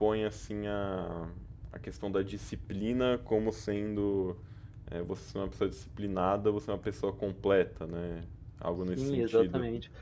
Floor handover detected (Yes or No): Yes